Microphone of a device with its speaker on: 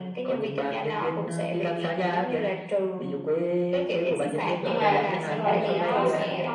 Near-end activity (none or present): present